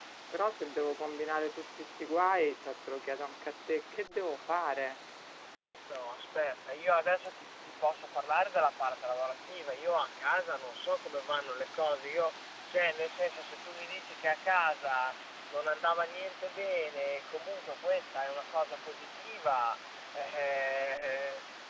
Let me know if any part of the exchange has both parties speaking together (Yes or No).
No